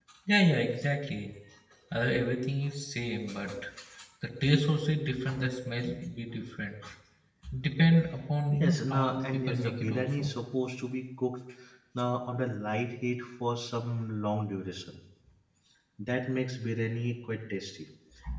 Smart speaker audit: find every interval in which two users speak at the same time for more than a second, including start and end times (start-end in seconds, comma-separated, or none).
8.5-10.3